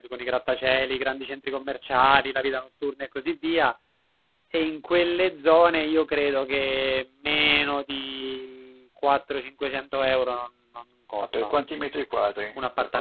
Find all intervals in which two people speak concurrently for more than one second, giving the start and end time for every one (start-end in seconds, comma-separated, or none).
none